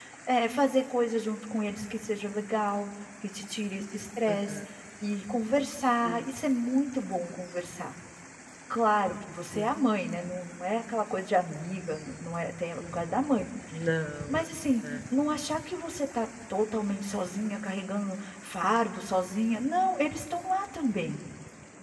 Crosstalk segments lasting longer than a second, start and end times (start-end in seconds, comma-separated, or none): none